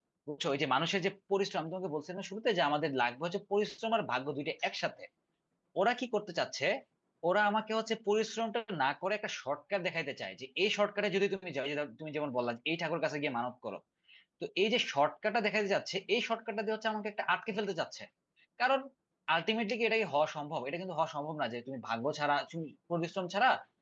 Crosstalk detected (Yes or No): No